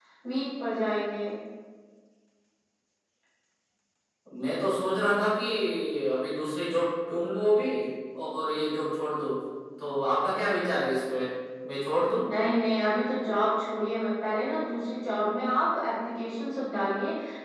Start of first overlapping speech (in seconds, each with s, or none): none